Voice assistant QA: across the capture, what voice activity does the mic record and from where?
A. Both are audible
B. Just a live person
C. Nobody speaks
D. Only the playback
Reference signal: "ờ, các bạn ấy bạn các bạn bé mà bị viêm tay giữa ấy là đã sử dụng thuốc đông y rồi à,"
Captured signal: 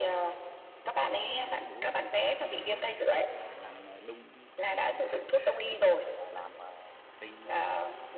A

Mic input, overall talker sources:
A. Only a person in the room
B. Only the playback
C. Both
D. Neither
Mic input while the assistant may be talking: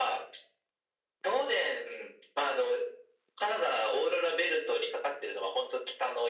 B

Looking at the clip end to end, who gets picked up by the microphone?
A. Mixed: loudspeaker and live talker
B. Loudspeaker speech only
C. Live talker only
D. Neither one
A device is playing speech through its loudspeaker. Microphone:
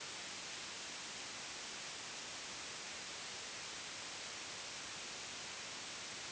D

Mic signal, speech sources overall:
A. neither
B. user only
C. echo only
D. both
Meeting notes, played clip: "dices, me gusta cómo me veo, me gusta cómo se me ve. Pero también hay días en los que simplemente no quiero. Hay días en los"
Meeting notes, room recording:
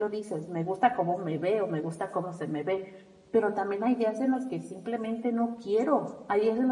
C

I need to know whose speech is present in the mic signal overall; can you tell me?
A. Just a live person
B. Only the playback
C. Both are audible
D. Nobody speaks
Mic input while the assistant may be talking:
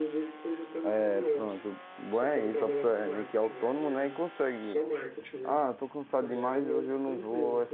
C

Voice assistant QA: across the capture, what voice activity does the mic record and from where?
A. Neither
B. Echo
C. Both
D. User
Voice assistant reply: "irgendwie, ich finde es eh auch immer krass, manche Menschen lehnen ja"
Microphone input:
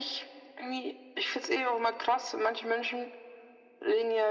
B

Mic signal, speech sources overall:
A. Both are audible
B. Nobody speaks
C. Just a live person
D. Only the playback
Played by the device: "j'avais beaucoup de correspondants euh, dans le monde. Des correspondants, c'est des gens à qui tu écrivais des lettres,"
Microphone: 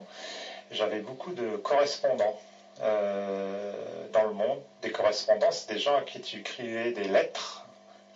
D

